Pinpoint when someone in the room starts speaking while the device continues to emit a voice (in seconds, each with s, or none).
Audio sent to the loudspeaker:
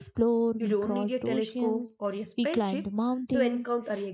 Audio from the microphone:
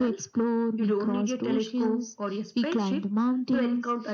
none